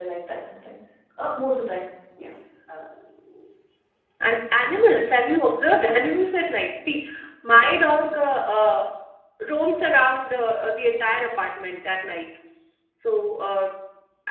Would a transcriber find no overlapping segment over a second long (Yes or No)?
Yes